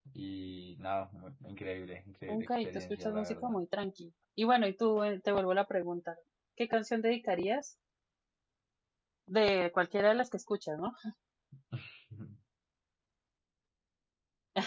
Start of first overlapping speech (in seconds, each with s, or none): 2.3 s